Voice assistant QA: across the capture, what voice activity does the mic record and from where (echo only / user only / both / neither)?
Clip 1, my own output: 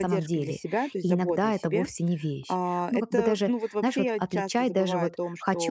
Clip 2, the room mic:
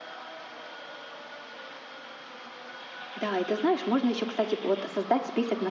user only